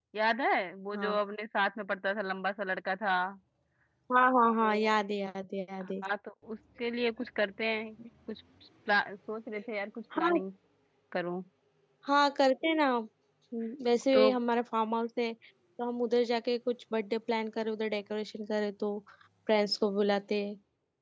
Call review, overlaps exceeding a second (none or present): none